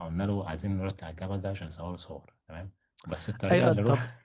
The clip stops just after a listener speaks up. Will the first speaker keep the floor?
No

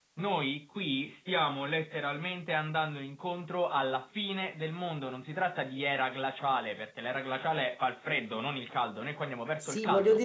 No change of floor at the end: No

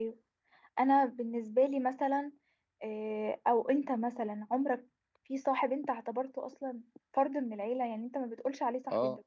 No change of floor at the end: No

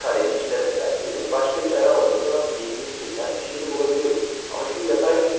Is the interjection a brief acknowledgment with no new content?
Yes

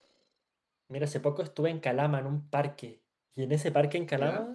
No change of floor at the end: Yes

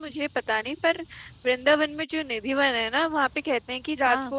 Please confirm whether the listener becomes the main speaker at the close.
No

